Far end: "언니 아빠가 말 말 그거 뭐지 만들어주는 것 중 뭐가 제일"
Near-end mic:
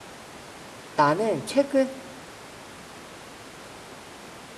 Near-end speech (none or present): present